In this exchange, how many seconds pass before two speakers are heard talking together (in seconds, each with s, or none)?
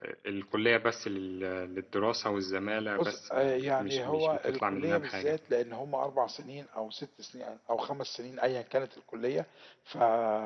3.0 s